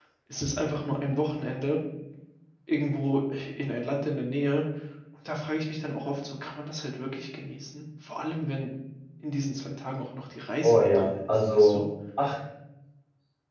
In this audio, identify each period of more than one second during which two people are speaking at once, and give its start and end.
10.6-11.8

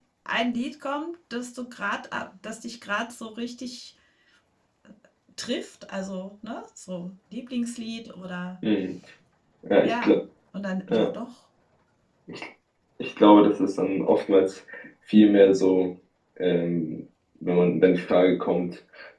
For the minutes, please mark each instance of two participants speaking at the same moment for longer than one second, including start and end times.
none

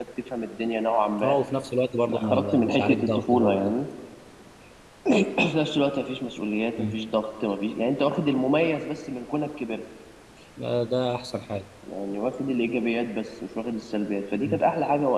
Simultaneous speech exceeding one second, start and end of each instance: 2.1-3.7

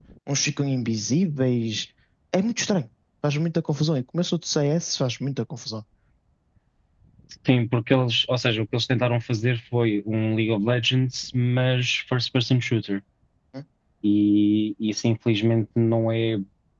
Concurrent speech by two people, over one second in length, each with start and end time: none

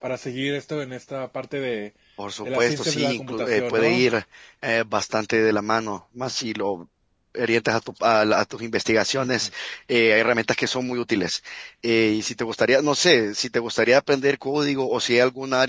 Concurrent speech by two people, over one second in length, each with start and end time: 2.4-4.0

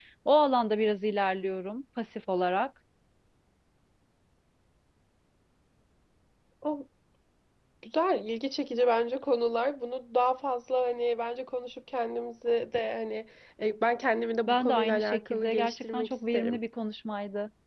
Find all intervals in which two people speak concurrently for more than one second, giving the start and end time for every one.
14.5-16.6

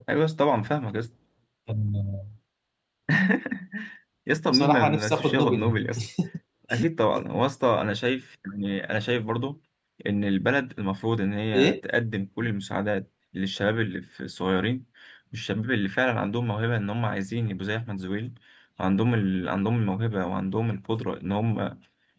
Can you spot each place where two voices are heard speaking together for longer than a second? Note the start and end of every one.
4.5-5.8

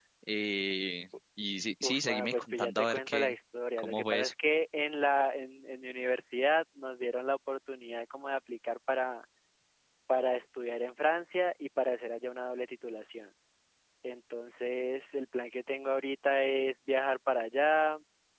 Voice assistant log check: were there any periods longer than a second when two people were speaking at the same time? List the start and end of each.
1.8-3.4

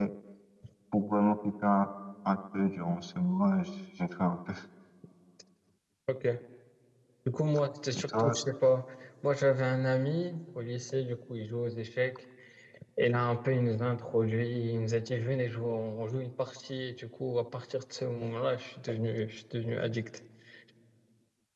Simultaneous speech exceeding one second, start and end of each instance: none

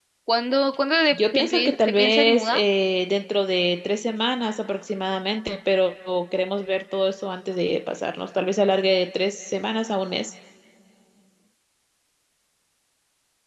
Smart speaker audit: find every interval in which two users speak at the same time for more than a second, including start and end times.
1.1-2.6

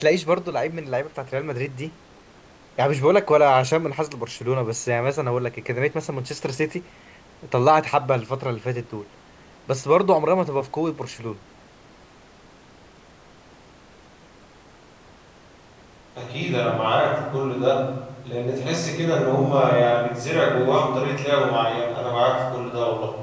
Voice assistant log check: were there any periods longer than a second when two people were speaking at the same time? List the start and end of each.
none

